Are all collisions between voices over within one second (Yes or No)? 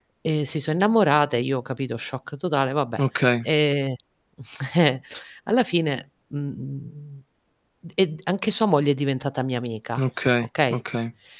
Yes